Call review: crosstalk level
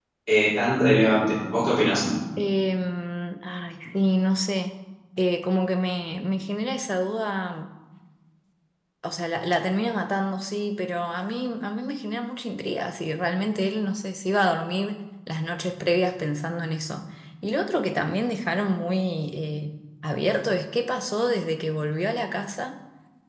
none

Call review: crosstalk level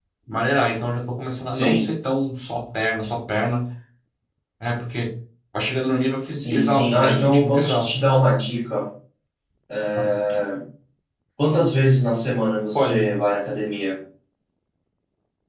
present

